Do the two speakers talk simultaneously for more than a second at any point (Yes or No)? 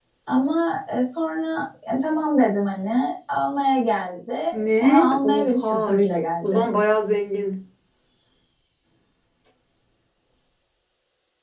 Yes